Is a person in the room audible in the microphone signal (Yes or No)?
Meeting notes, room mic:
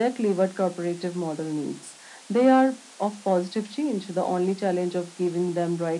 No